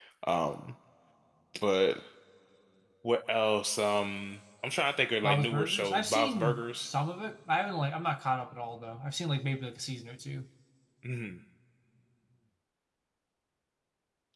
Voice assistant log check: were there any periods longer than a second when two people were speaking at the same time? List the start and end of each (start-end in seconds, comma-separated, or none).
5.2-6.9